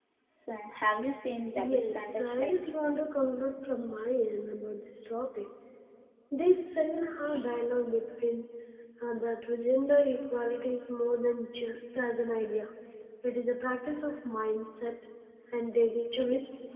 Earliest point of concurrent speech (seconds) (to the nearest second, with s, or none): 2 s